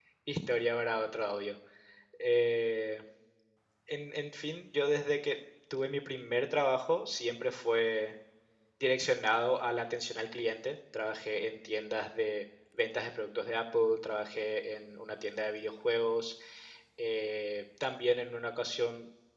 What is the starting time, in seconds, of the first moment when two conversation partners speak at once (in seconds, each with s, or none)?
none